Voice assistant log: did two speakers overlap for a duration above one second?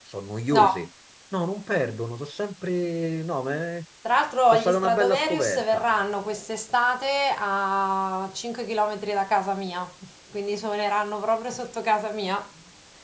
Yes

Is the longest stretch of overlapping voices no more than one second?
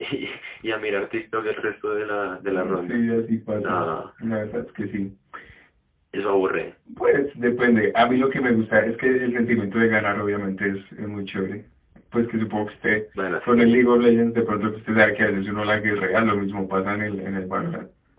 Yes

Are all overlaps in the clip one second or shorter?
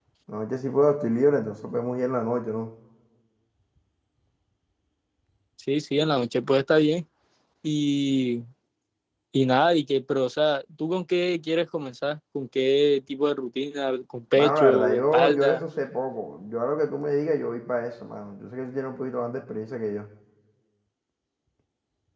No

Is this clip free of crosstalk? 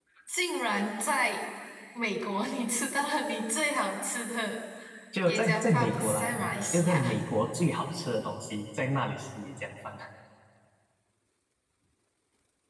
No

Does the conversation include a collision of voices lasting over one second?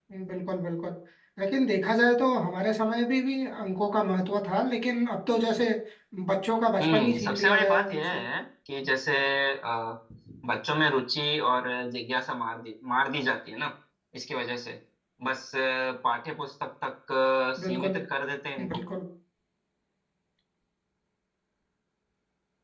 Yes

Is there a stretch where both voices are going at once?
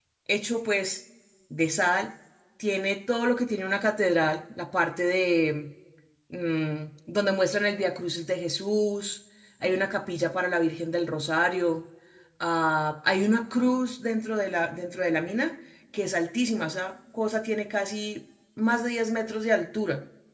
No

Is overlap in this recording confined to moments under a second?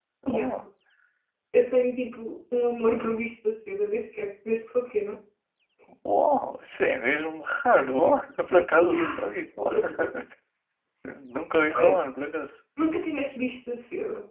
Yes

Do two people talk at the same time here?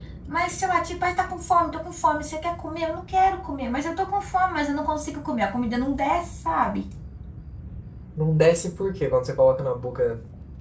No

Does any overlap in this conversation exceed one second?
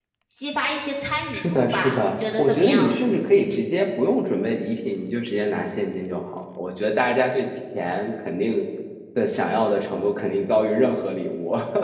Yes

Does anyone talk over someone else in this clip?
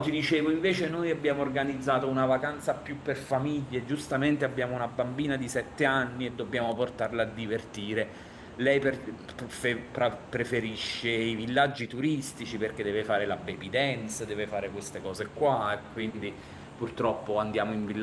No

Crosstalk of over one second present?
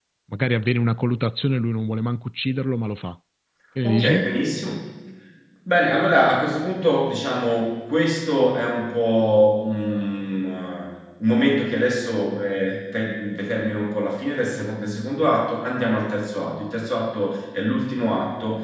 No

